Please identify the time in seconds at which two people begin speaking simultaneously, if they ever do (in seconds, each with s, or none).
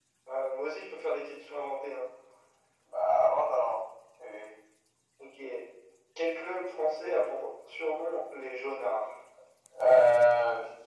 none